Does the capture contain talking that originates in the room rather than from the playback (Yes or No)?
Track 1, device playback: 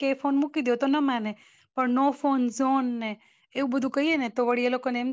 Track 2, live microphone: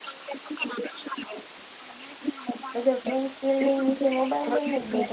Yes